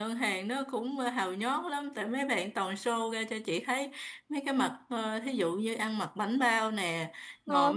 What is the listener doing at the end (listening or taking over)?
listening